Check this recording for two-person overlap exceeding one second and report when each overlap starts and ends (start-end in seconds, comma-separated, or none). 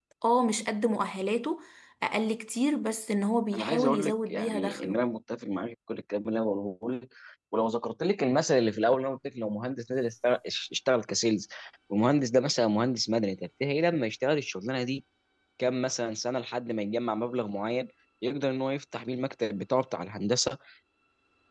3.5-5.0